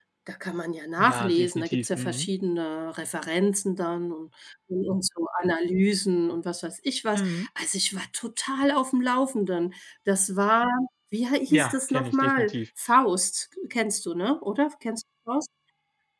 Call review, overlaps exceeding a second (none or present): present